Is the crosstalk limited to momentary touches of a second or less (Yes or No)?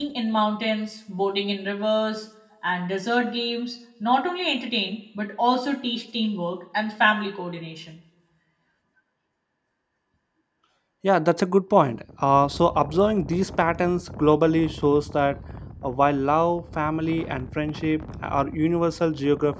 Yes